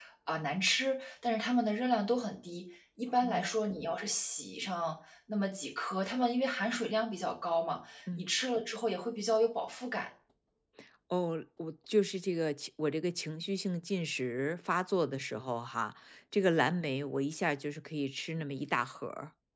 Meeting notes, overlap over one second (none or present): none